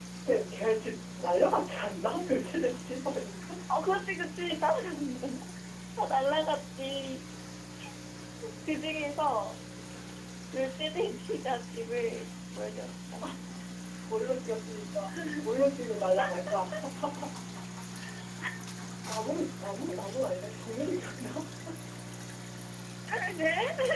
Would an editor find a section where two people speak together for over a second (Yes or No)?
No